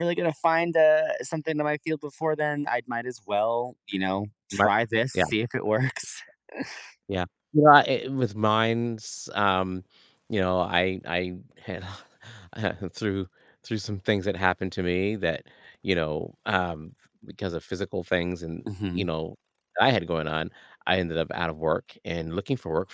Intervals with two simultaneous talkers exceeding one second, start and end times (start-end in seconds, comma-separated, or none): none